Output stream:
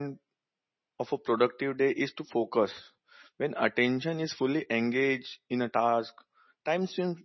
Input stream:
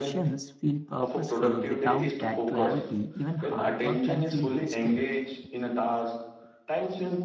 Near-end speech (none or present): present